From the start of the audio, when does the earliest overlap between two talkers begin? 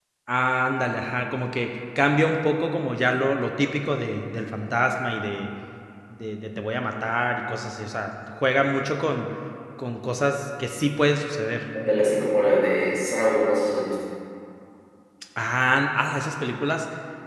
none

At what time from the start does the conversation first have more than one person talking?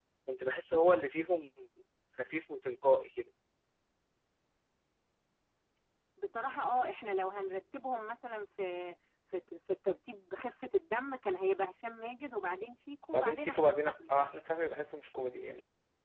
13.1 s

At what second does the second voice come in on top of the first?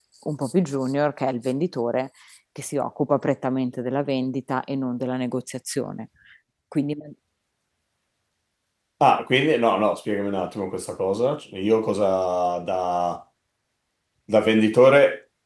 none

